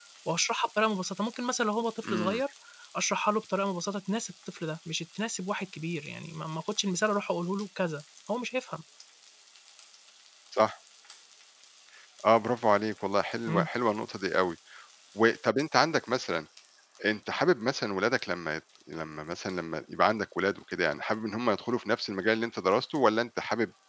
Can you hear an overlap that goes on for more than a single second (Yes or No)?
No